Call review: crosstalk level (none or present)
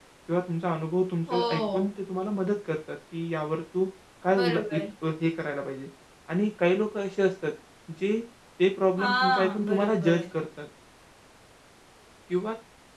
present